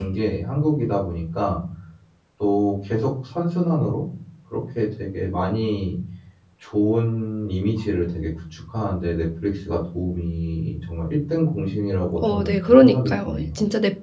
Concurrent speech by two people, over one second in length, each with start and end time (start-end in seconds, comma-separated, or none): 12.2-13.4